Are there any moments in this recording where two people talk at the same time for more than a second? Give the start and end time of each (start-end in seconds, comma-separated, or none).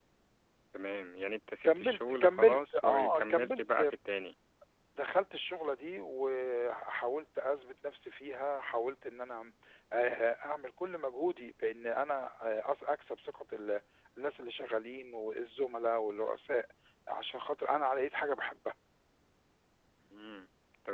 1.6-3.8